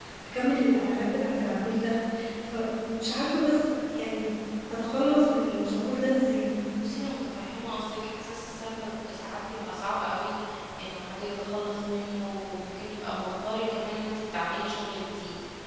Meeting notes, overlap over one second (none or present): none